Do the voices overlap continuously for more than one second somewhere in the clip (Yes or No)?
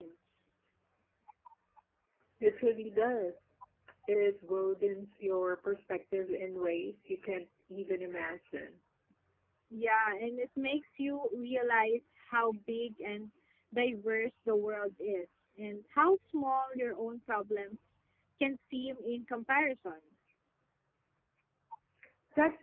No